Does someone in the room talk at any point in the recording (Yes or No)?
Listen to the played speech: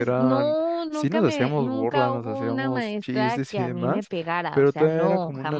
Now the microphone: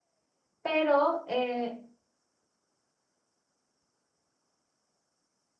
Yes